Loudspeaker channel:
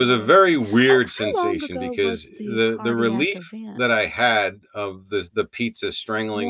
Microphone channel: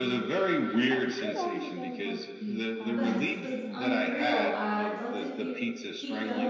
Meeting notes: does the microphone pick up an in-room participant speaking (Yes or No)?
Yes